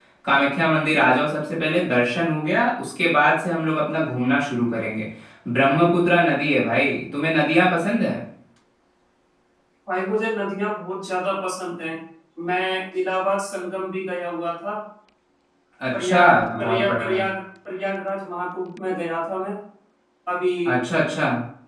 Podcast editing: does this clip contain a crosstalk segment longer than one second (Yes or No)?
Yes